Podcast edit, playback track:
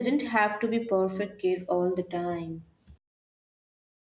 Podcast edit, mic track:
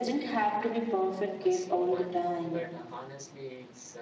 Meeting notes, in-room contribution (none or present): present